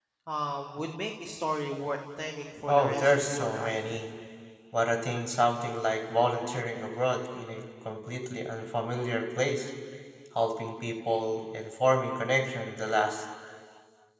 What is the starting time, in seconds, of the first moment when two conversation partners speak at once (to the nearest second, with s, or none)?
3 s